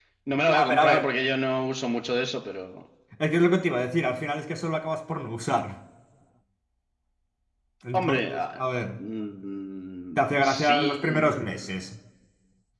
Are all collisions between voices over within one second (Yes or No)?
No